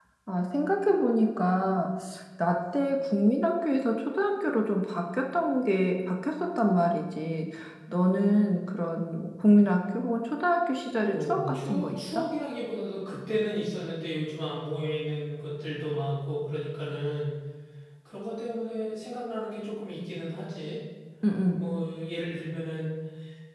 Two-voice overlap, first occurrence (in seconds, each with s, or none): 11.0 s